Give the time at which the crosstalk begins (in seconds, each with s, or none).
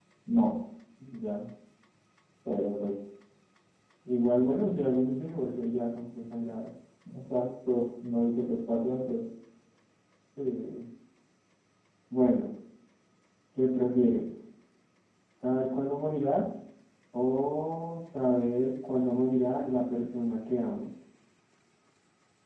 none